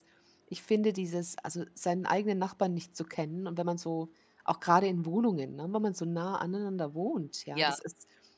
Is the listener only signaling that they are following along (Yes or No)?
Yes